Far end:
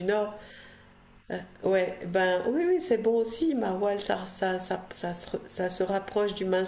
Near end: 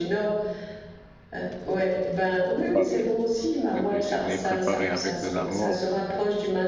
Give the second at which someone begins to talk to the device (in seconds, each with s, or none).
2.6 s